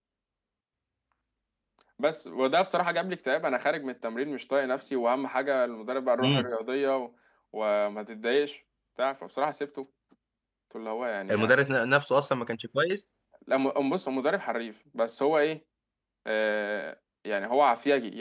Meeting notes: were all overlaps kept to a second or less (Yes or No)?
Yes